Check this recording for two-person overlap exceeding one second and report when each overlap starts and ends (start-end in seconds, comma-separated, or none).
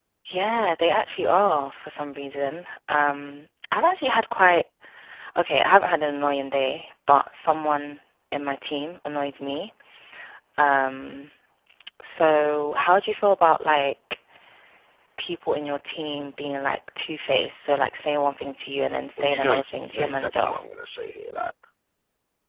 19.2-20.6